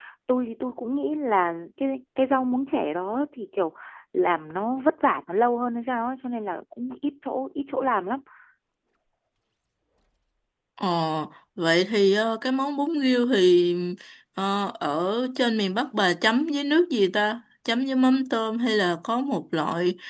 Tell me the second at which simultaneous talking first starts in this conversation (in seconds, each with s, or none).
none